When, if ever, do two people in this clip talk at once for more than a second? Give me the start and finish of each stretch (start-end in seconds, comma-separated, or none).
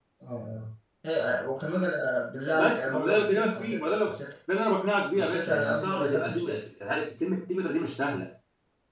2.5-3.9, 5.2-6.5